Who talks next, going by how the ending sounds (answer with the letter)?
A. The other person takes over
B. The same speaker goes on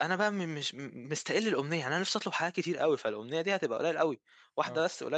B